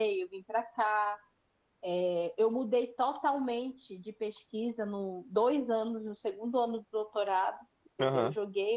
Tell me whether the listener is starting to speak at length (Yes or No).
No